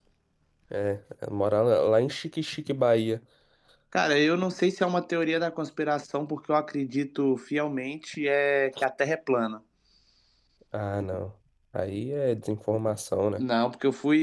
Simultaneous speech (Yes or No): No